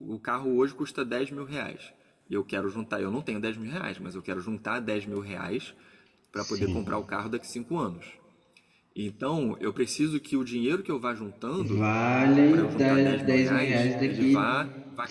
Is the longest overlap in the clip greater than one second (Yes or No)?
Yes